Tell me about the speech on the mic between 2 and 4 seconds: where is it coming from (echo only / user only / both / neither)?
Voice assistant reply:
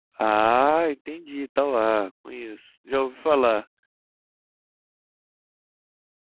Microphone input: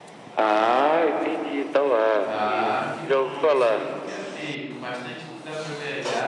both